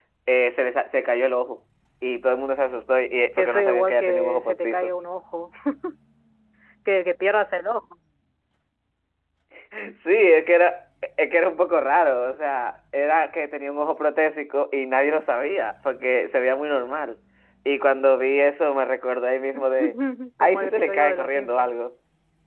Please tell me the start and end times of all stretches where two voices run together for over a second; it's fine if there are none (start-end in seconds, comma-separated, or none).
3.4-4.9, 20.4-21.7